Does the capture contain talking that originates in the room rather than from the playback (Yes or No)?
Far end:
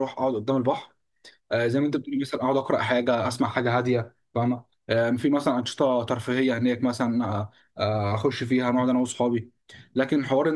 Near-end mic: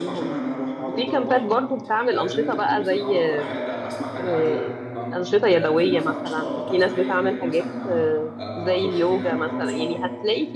Yes